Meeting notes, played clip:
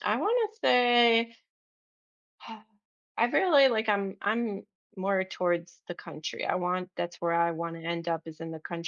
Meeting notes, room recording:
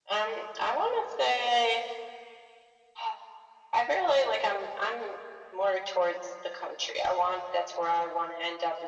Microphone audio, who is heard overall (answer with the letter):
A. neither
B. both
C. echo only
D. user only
C